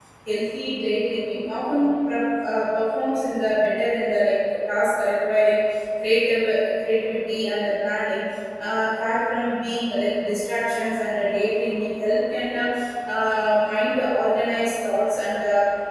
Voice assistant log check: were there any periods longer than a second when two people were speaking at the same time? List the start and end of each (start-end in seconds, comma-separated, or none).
none